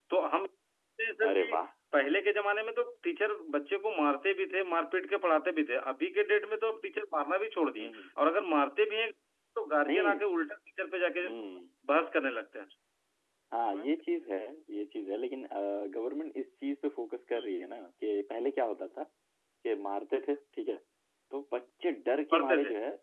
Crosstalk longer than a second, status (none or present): none